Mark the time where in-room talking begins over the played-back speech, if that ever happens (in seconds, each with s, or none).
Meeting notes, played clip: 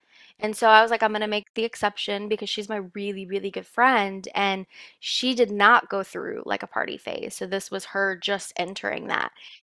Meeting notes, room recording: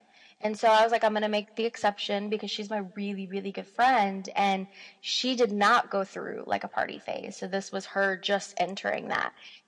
none